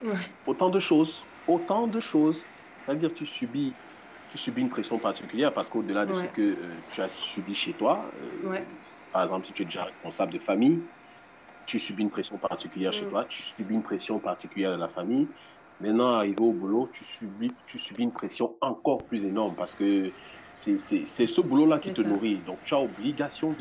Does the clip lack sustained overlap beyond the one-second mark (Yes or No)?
Yes